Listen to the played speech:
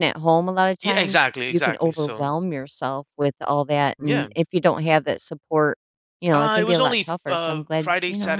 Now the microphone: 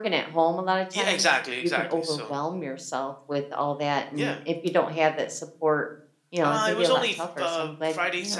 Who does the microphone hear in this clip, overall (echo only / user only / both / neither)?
echo only